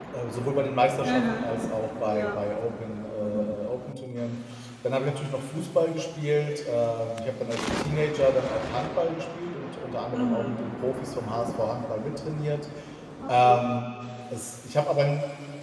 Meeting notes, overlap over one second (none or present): none